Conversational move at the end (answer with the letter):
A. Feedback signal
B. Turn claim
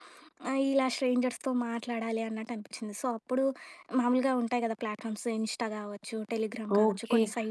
B